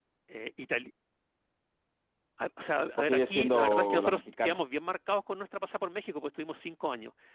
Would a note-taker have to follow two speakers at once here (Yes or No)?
Yes